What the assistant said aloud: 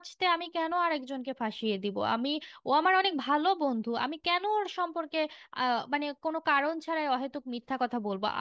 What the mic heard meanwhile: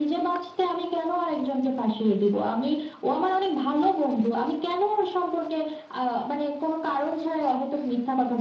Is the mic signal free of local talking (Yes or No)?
Yes